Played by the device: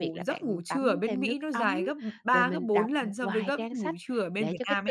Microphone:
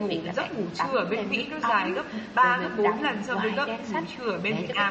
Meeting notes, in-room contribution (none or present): none